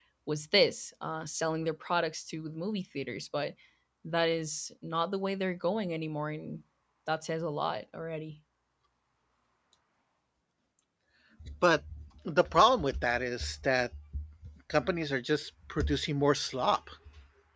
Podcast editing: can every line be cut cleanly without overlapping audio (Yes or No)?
Yes